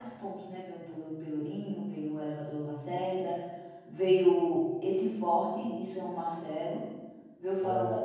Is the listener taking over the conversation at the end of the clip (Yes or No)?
No